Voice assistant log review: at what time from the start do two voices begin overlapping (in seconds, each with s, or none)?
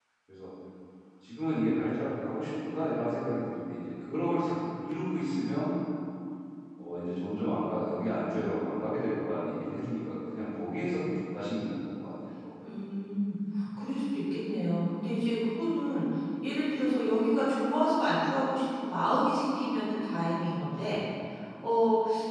none